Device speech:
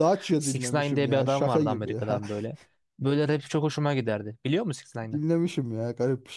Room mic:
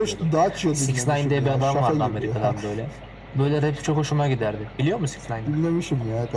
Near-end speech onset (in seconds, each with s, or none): none